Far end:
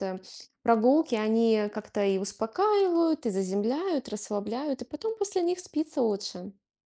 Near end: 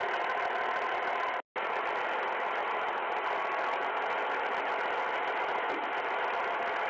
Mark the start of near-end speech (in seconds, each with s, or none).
none